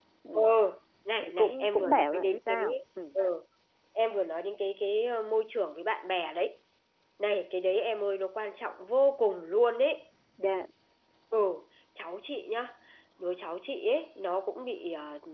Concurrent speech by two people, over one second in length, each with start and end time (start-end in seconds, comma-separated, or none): 1.2-2.6